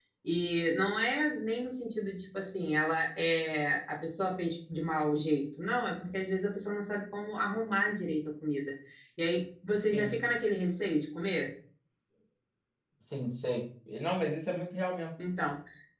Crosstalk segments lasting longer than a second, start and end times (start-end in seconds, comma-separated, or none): none